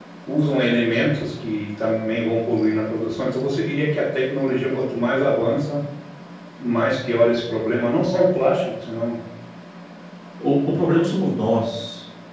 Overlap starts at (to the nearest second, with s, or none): none